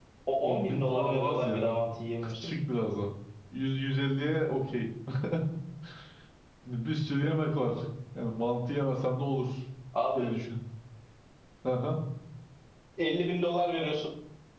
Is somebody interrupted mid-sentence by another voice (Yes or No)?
Yes